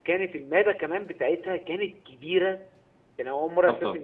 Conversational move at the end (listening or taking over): listening